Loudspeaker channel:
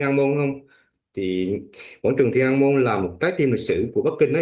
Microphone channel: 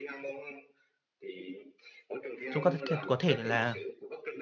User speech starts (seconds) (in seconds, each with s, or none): 2.5 s